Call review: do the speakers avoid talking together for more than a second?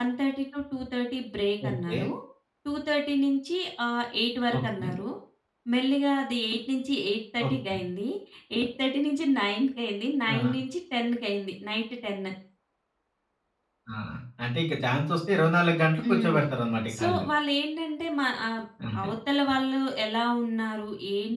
Yes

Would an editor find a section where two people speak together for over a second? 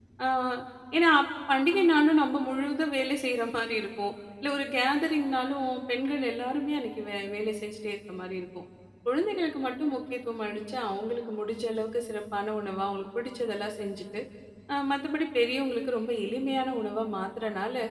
No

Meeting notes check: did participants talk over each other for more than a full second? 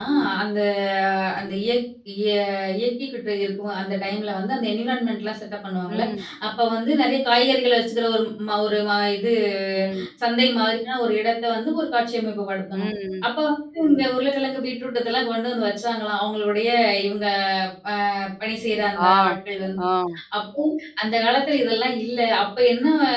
No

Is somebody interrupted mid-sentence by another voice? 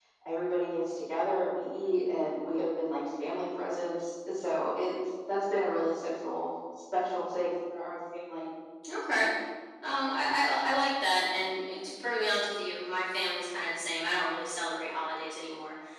No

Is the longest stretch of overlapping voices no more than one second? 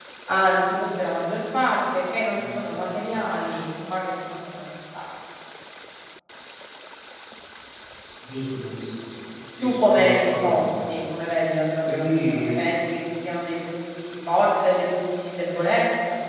No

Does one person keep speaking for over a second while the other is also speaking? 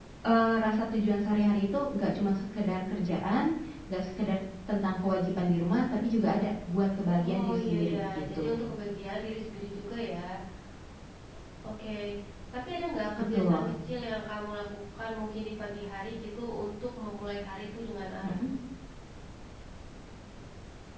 Yes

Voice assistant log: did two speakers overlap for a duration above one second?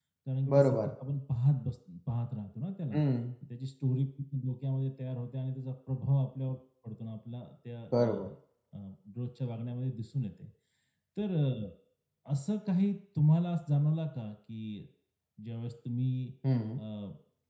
No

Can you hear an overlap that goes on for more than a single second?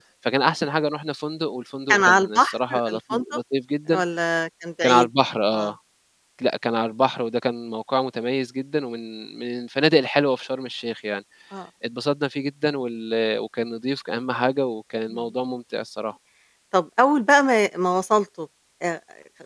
Yes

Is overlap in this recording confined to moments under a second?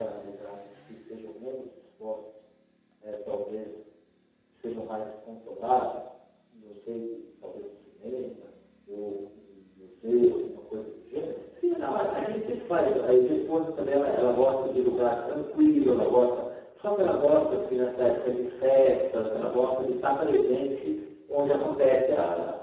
Yes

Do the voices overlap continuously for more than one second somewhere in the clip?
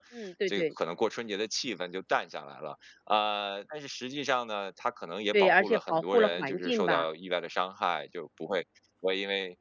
Yes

